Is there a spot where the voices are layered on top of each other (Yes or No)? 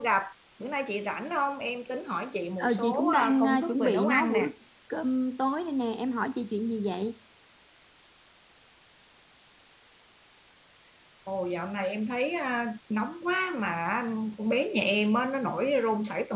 Yes